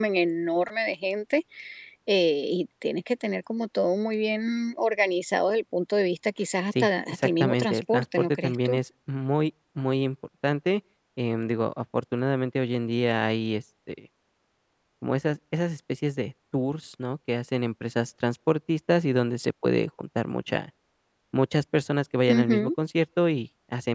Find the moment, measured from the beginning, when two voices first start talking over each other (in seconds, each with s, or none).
6.8 s